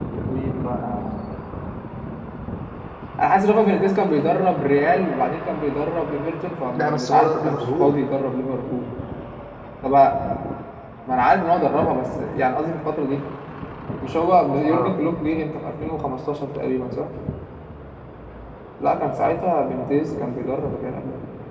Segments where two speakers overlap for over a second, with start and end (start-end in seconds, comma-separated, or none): 6.8-8.0